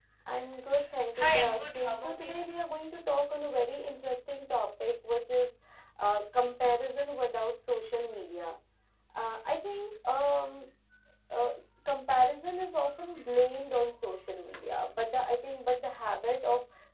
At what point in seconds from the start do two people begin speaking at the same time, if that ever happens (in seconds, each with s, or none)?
1.1 s